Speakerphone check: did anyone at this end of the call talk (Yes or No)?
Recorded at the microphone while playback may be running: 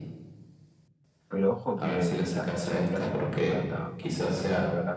Yes